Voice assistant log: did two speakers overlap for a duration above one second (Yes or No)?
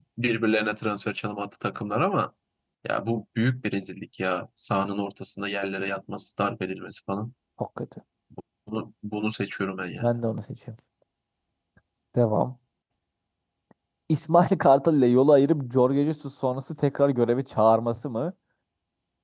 No